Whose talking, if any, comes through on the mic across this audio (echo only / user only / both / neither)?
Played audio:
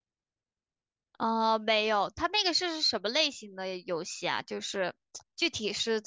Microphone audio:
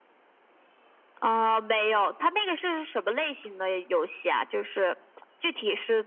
echo only